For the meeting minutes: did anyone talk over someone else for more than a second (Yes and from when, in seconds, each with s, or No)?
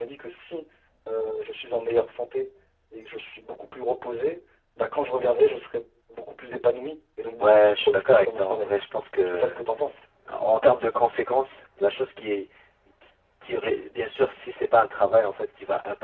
Yes, from 7.4 s